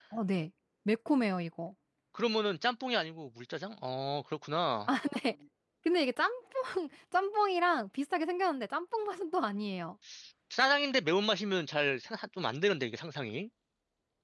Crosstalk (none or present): none